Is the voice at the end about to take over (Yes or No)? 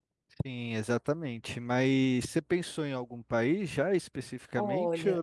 Yes